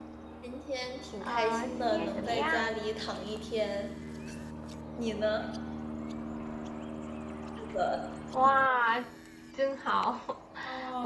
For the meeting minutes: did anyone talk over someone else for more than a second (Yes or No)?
Yes